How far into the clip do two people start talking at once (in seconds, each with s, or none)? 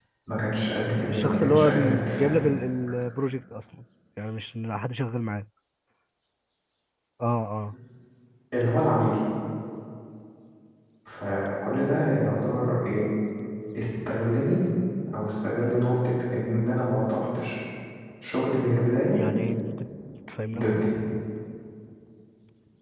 1.1 s